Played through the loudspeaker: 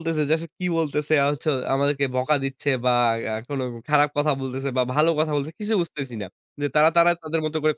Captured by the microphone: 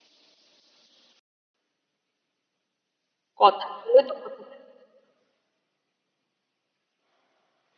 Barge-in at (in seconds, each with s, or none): 3.4 s